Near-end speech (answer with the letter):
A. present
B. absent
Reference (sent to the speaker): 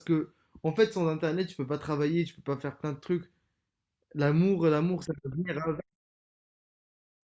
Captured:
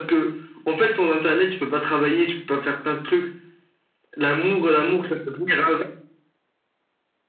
B